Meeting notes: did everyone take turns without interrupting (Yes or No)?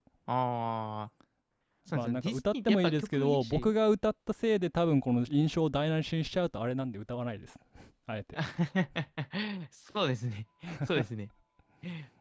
No